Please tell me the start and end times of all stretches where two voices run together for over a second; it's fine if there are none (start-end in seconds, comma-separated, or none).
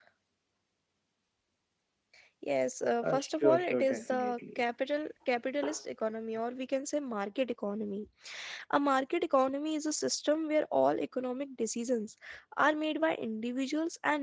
3.0-4.6